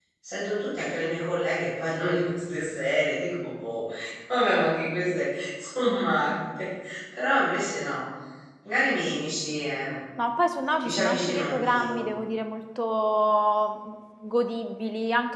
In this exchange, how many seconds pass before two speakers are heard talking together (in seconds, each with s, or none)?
10.8 s